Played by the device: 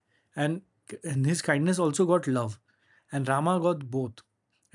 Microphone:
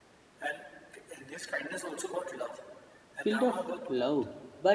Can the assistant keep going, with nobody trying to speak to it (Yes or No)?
No